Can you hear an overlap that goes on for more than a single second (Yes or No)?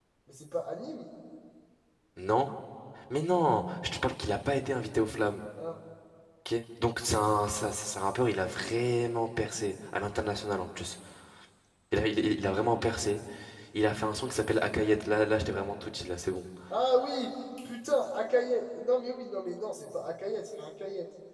No